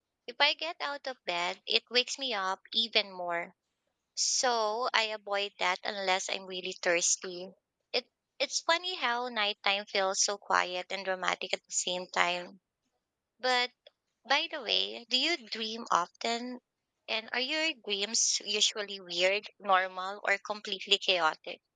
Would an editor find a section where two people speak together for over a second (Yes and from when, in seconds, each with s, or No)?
No